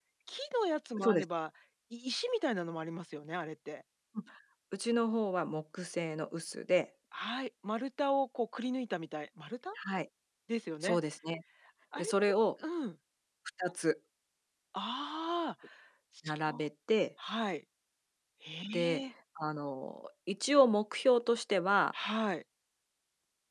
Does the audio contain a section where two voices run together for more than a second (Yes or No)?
No